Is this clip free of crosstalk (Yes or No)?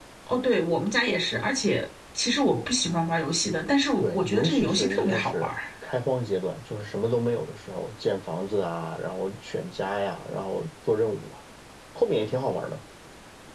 No